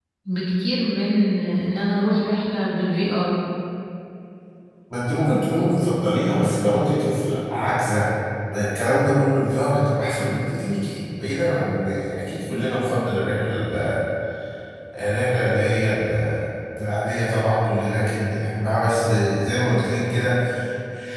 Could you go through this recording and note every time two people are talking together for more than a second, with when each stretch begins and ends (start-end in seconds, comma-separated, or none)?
none